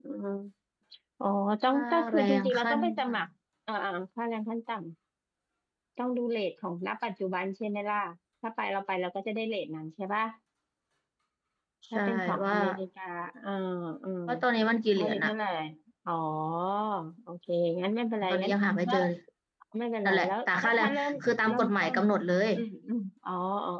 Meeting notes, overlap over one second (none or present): present